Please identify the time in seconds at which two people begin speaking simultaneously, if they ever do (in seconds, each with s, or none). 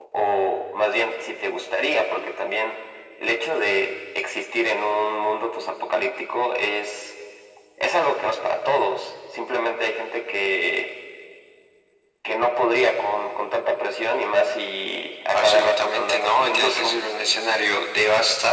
15.3 s